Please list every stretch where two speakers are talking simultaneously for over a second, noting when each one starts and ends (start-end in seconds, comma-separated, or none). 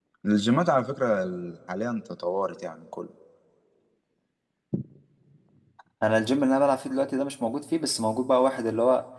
none